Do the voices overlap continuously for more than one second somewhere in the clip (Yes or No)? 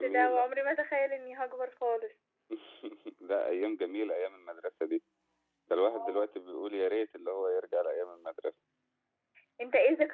No